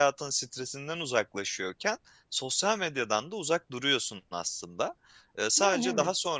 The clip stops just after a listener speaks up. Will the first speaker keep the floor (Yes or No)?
Yes